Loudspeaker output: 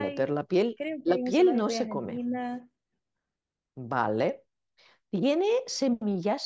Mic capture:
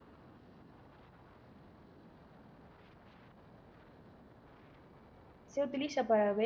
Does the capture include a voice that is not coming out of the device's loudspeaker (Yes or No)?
Yes